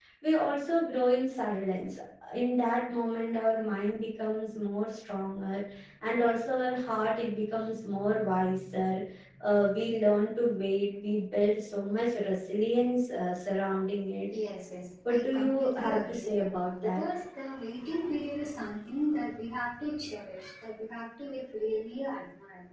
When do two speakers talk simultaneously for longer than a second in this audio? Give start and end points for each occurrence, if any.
15.1-17.0

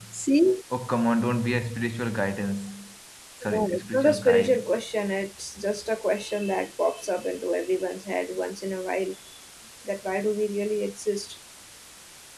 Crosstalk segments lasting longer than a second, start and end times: 3.5-4.7

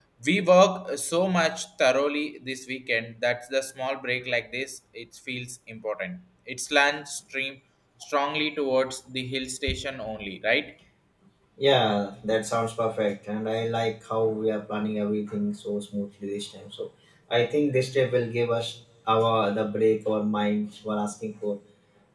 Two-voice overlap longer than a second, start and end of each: none

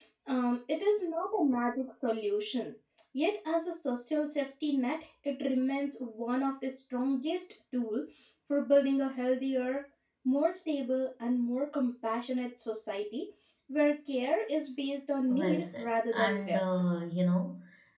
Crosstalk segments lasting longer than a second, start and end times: 15.3-16.6

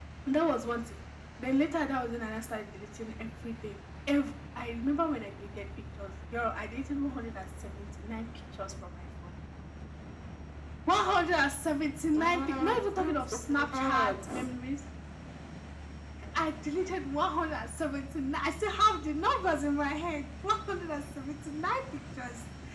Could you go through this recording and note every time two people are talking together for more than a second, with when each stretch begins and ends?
12.1-14.5

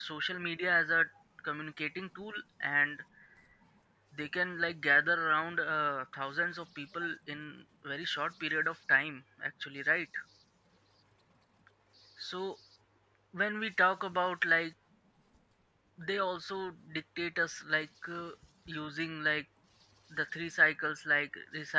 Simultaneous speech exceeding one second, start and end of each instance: none

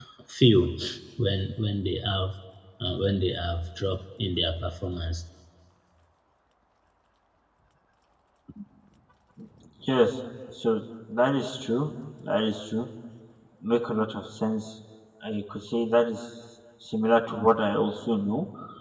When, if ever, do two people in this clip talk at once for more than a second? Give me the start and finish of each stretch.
none

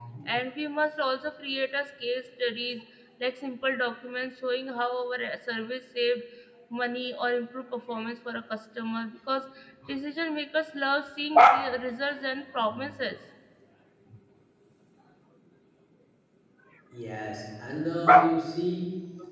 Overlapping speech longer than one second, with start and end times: none

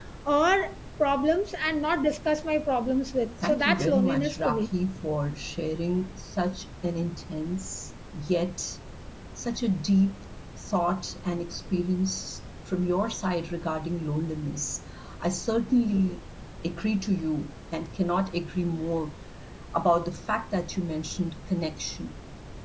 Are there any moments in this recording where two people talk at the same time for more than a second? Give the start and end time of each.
3.4-4.7

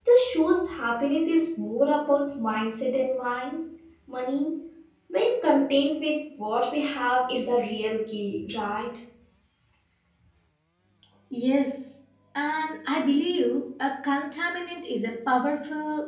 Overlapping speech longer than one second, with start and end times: none

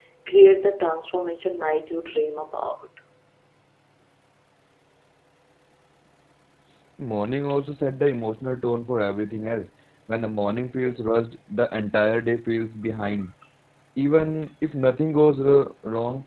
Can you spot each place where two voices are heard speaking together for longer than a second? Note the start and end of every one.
none

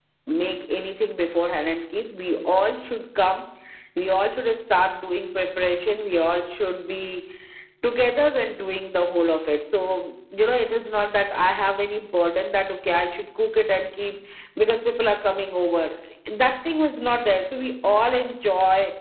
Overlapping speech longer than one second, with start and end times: none

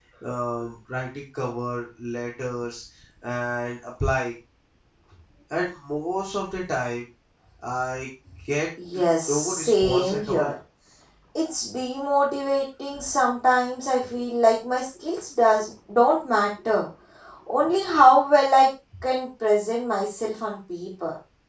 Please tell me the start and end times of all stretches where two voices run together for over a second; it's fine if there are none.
9.3-10.5

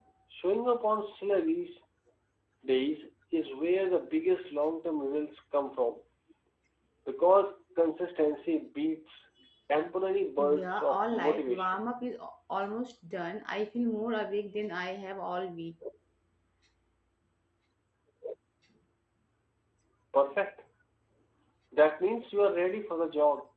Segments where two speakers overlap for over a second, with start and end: 10.4-11.8

